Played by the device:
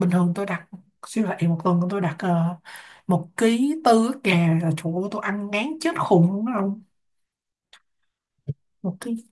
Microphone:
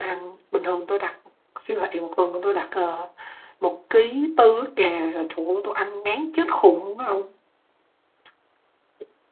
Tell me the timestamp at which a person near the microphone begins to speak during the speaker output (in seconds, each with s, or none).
none